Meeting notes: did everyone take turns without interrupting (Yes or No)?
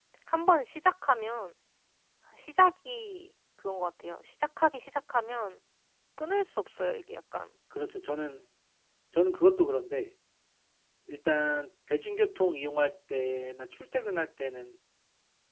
Yes